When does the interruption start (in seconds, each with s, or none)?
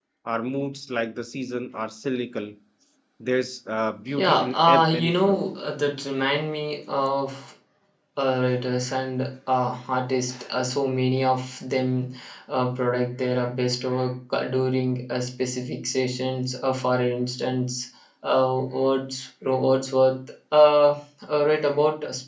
4.2 s